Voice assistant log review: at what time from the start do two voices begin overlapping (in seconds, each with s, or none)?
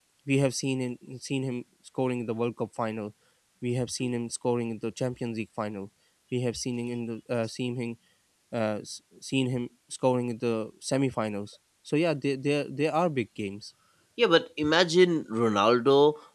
none